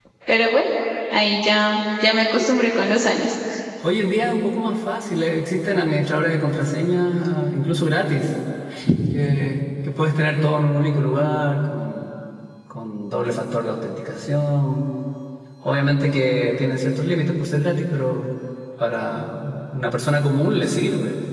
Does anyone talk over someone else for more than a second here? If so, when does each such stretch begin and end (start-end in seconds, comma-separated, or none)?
none